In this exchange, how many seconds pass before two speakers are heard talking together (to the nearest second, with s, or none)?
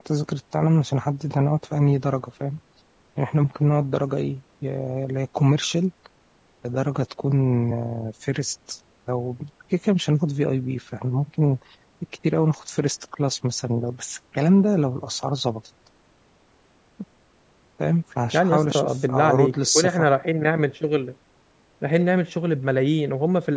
18 s